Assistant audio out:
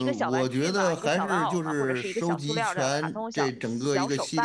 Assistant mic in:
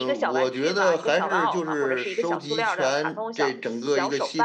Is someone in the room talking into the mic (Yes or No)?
No